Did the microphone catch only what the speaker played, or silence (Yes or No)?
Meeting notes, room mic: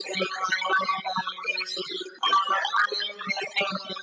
Yes